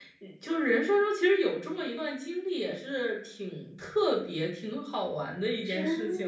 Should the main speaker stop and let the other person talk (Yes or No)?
Yes